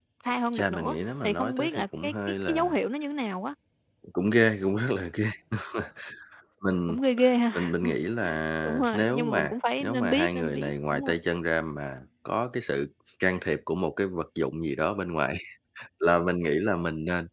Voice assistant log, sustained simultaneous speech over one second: present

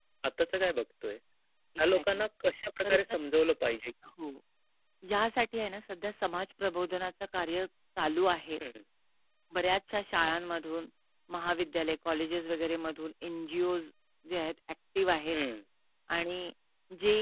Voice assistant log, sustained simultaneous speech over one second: none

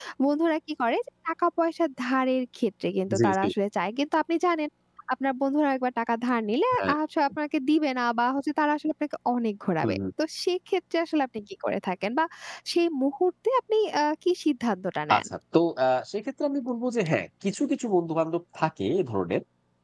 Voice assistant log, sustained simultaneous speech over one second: none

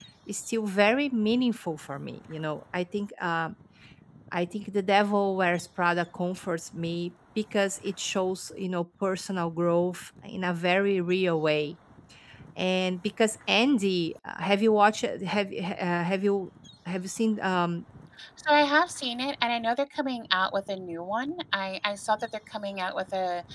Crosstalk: none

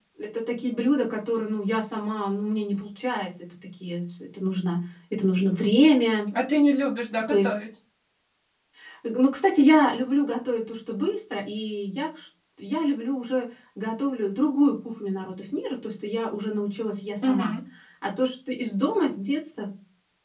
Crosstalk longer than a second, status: none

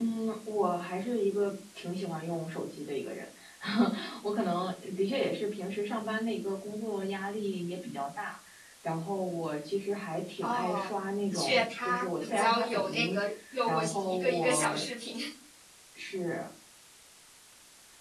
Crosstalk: present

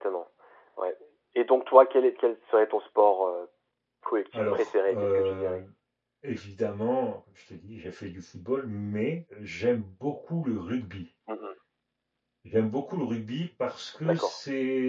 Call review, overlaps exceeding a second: present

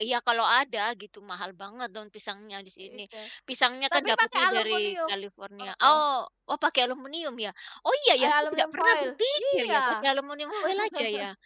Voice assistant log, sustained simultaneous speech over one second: present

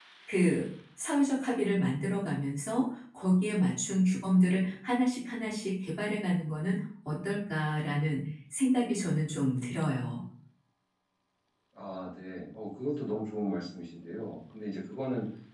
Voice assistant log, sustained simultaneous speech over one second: none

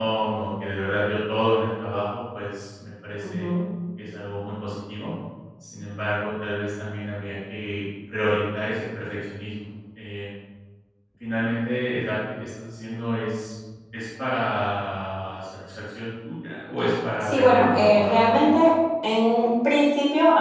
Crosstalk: present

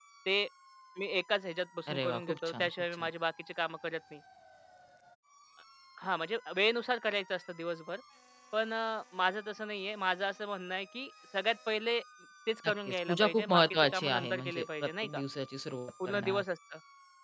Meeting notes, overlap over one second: present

